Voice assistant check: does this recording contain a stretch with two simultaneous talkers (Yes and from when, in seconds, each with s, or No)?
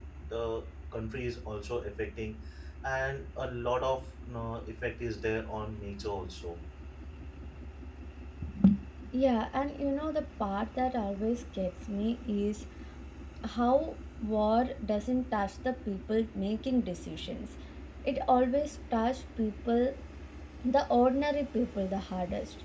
No